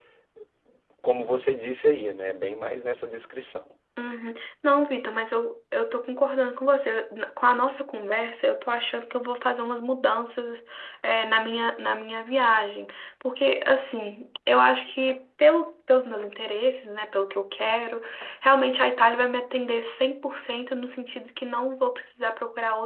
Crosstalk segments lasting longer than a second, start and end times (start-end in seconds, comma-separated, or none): none